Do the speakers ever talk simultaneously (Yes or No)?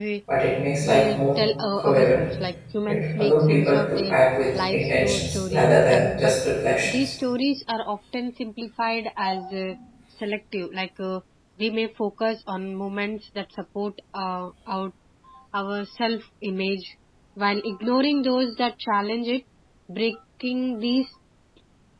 Yes